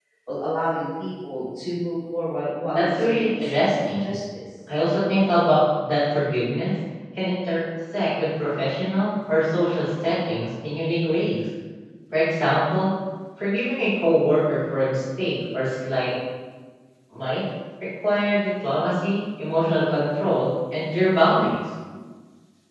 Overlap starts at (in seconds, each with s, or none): 2.7 s